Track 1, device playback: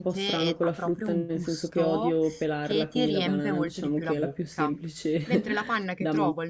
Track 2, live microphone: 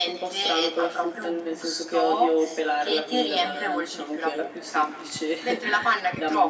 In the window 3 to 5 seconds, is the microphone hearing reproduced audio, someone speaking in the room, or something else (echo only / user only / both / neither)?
echo only